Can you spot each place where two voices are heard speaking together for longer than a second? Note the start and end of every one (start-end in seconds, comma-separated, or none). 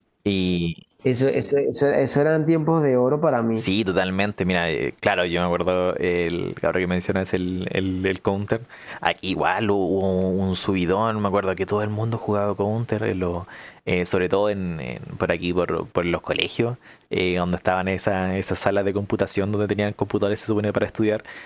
none